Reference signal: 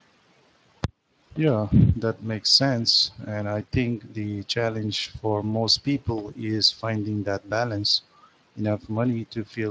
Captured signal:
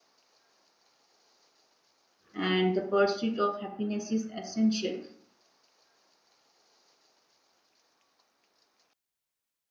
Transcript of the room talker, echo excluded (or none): and the pursuit of happiness is essential,